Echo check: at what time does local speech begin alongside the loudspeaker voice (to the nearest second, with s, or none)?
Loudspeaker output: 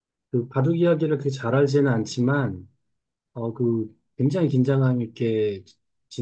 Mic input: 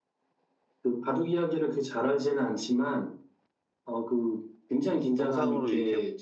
5 s